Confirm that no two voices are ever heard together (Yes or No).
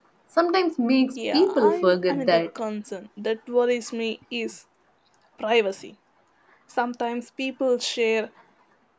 No